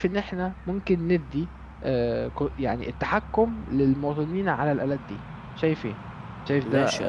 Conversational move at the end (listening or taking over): taking over